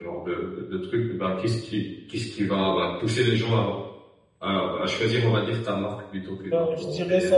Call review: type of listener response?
taking over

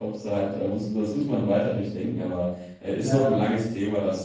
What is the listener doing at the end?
listening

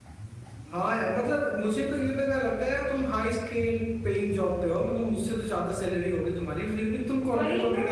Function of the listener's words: taking over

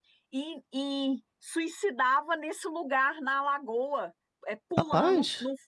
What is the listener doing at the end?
listening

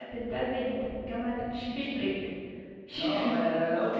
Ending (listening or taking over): taking over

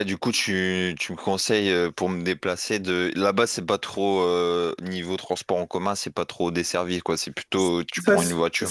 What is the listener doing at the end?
taking over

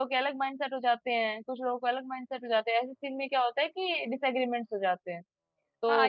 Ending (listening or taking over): taking over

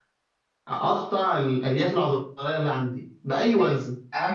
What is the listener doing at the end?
taking over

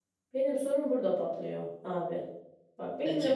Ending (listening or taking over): listening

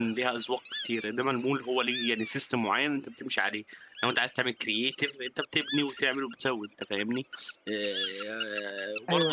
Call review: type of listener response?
listening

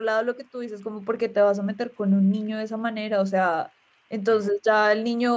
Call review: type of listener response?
listening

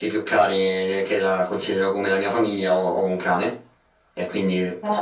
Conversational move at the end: listening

